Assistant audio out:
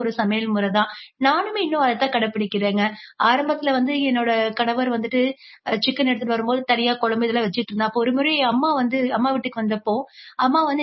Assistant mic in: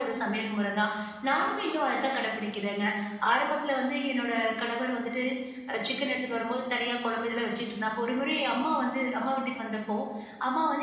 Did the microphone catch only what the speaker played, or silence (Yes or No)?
Yes